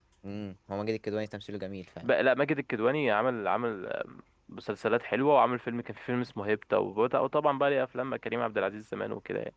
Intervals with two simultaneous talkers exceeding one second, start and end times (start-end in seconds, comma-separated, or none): none